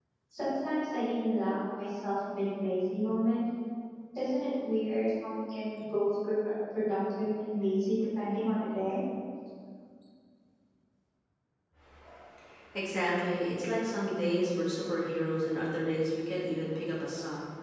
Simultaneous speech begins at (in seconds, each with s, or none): none